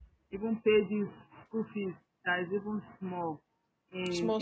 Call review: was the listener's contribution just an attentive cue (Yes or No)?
Yes